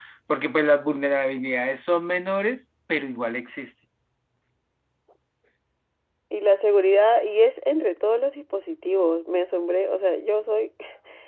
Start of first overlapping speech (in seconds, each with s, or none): none